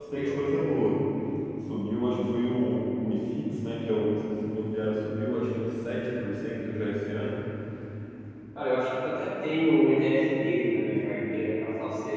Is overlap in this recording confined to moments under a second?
Yes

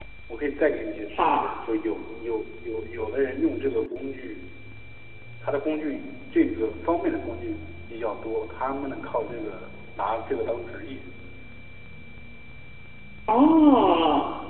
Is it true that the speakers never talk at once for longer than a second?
Yes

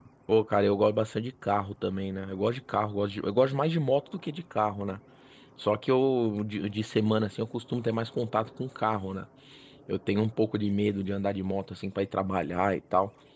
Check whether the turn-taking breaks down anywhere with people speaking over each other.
No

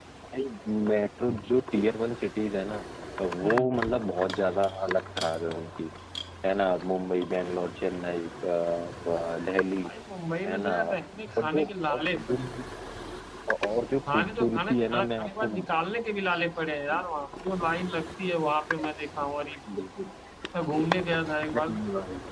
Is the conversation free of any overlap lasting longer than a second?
No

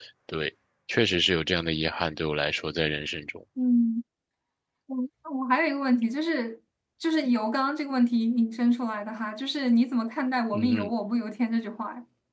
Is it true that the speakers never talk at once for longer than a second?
Yes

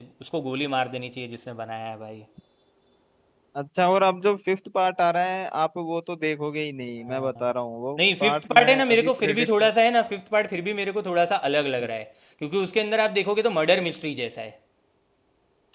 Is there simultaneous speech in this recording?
Yes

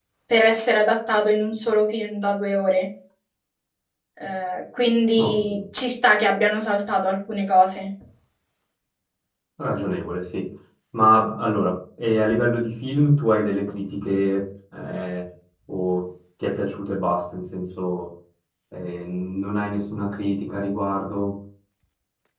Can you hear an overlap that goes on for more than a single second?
No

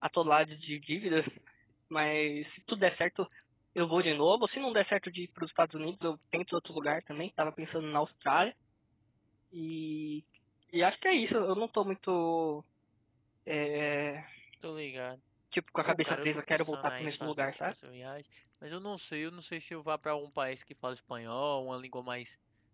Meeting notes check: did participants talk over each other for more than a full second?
Yes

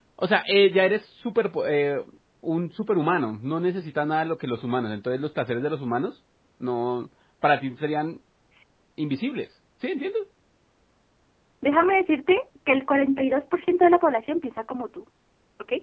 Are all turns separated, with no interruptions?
Yes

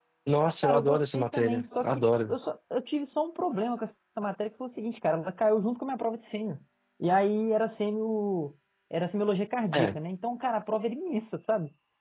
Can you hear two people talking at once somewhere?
Yes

